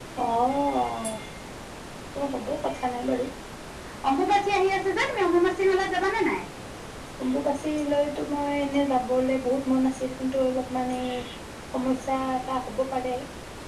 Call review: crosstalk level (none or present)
none